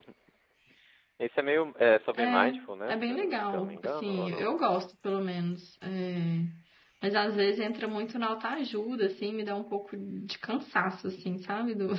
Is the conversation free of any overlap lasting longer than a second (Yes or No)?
No